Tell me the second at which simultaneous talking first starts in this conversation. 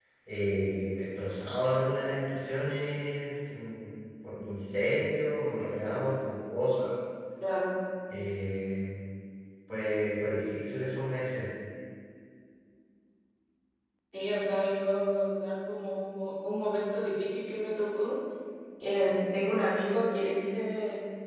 none

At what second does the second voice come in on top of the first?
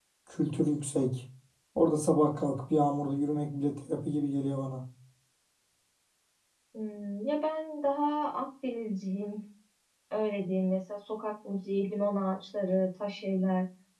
none

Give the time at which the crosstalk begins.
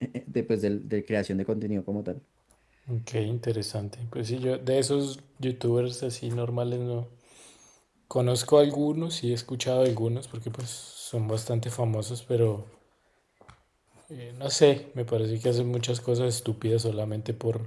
none

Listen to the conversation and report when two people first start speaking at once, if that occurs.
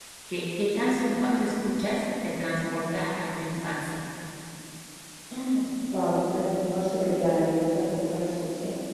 none

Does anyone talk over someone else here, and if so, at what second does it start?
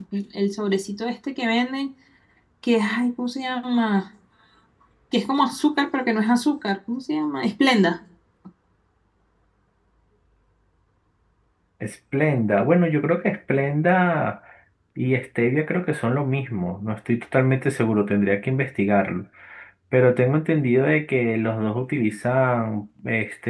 none

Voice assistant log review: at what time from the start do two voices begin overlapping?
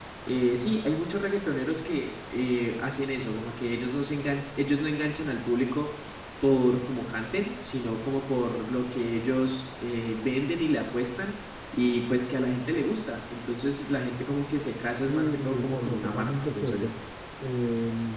15 s

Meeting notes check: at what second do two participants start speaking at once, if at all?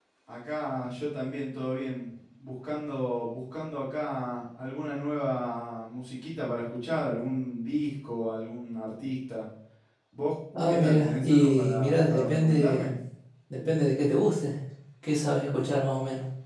11 s

